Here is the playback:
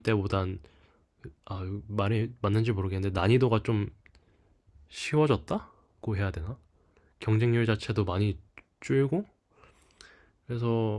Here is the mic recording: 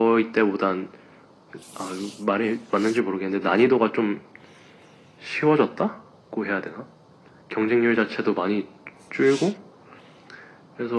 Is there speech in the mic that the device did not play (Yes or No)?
No